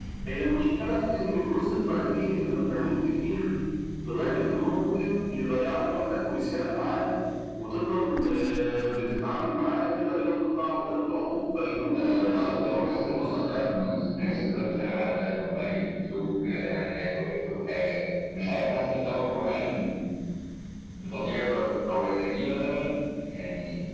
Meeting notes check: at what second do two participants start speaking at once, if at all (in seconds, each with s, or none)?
11.8 s